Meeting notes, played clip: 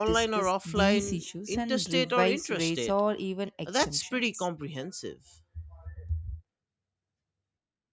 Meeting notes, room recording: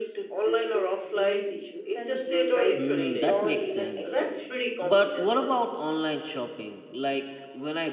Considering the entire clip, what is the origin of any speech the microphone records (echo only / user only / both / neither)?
both